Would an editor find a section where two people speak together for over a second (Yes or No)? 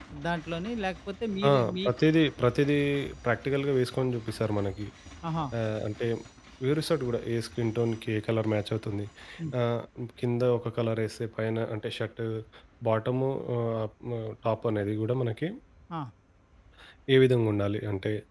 No